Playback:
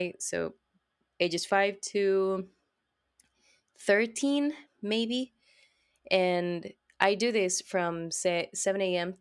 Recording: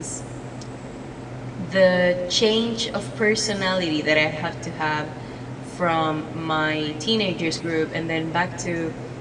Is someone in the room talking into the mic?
Yes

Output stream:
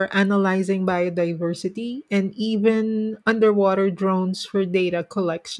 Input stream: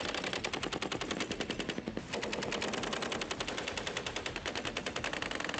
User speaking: No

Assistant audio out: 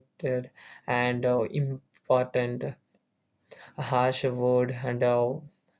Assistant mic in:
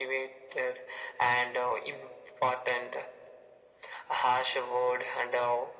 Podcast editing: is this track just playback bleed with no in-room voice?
Yes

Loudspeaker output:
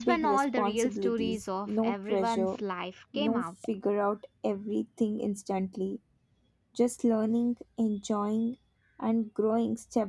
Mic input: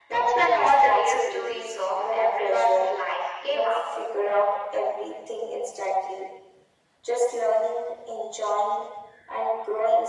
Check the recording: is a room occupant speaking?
No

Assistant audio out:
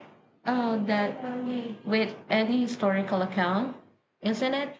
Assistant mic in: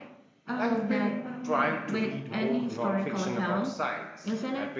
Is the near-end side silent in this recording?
No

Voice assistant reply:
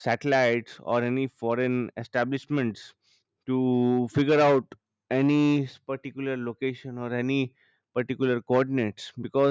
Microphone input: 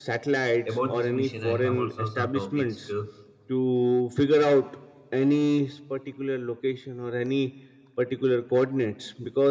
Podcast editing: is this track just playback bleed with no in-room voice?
No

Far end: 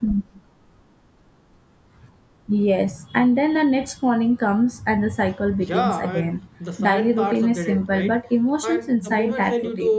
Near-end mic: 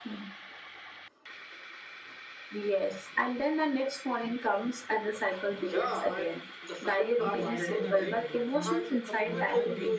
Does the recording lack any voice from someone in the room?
No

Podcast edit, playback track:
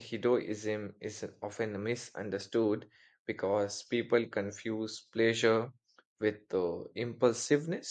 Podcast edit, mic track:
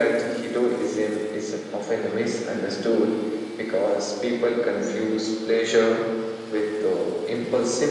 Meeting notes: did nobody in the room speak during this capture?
Yes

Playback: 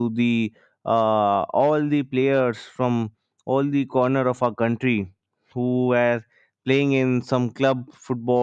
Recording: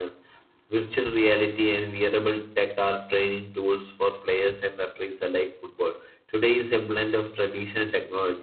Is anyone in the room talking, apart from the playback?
Yes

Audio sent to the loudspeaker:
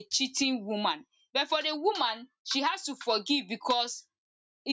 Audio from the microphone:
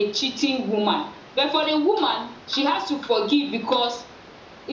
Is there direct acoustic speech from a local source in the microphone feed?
No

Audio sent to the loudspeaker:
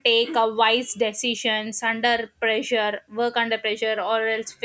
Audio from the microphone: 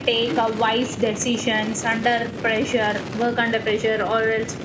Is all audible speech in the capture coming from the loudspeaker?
Yes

